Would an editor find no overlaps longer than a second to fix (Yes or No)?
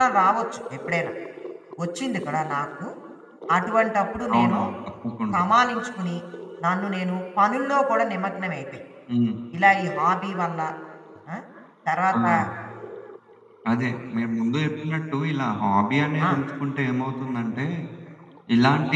Yes